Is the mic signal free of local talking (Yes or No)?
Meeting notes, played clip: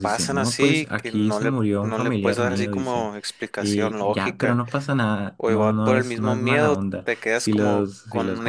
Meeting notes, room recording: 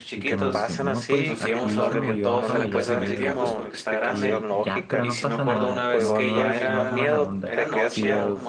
No